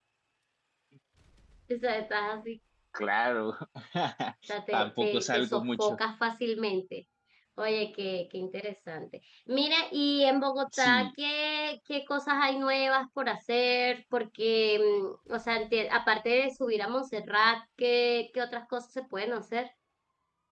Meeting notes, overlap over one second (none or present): present